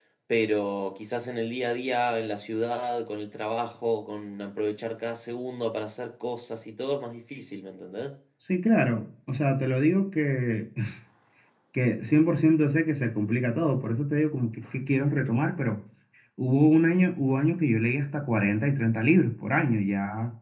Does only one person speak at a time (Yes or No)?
Yes